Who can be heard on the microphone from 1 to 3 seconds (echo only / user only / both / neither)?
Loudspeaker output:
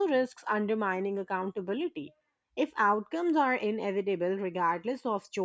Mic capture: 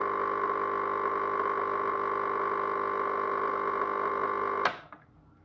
neither